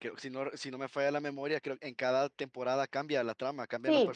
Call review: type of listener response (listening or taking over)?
taking over